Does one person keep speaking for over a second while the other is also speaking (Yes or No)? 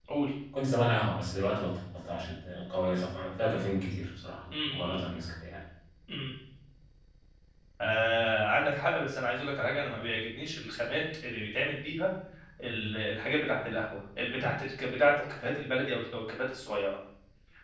No